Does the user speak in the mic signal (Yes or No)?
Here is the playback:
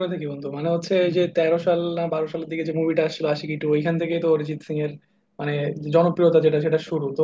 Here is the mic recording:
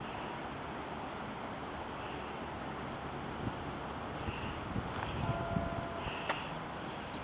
No